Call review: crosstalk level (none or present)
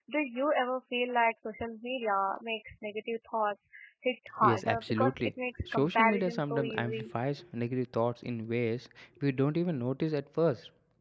present